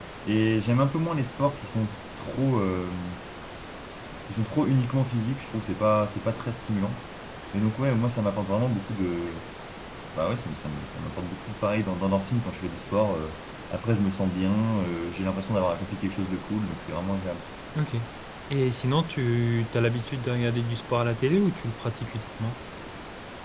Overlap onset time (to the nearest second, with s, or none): none